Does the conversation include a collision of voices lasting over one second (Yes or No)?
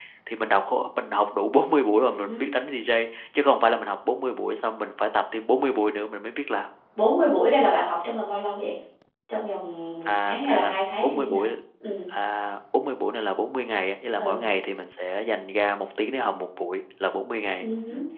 Yes